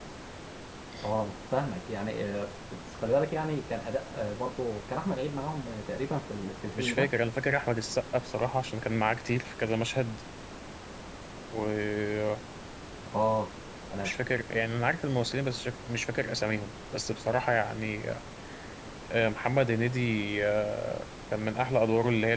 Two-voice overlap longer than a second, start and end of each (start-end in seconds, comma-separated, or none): none